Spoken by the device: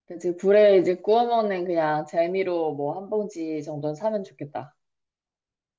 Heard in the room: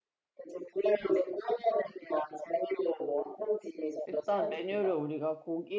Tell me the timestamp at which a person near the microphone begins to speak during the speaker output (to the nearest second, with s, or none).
4 s